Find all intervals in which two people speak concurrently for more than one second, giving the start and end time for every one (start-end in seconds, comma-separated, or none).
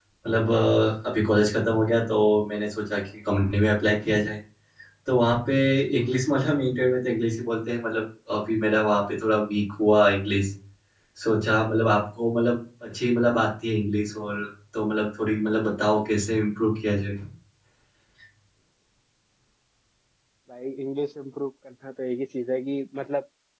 none